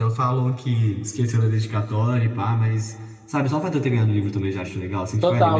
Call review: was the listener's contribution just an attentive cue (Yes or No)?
No